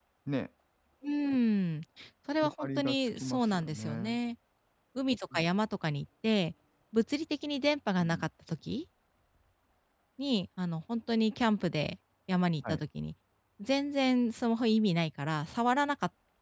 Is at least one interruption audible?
Yes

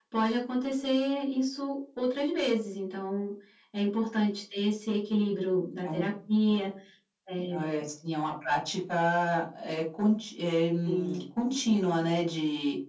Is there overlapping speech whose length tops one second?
No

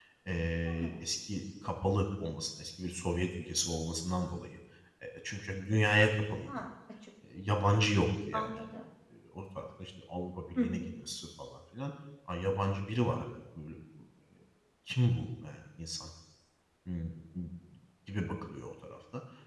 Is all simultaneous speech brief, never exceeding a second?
Yes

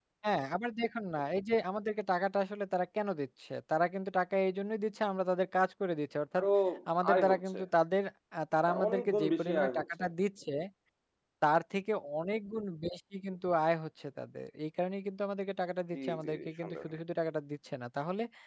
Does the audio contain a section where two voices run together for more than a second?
Yes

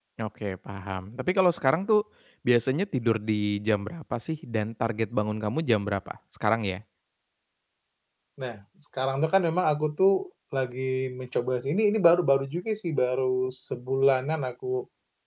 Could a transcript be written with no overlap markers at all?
Yes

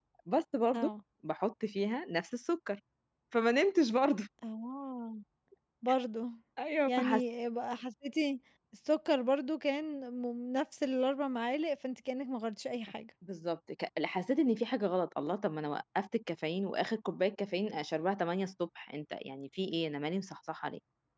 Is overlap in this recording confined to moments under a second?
Yes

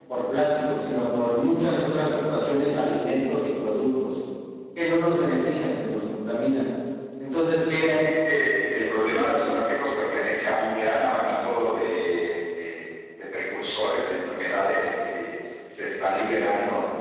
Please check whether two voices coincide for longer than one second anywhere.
No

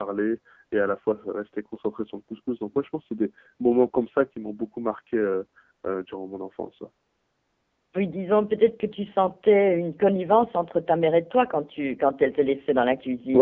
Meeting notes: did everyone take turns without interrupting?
Yes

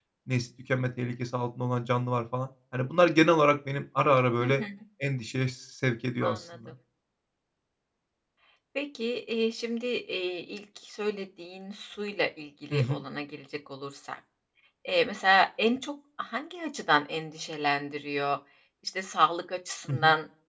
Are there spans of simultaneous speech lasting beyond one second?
No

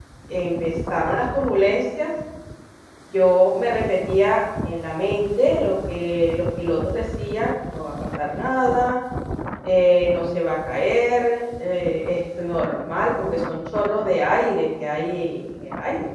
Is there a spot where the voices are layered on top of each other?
No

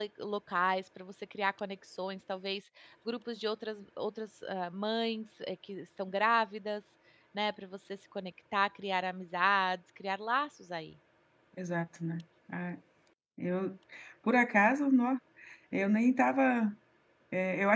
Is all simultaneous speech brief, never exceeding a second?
Yes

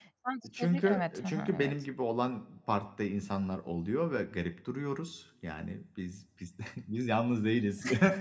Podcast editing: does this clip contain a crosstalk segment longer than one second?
Yes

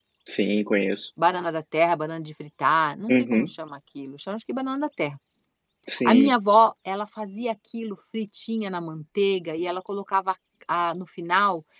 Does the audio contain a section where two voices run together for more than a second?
No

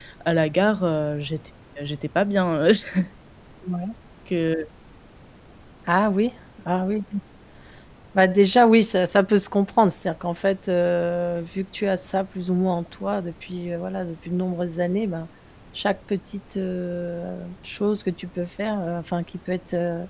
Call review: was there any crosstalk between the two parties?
No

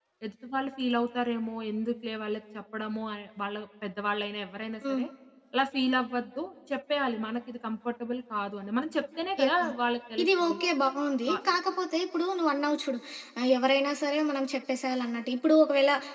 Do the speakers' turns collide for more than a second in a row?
No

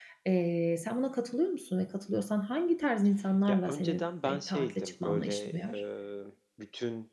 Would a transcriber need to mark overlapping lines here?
Yes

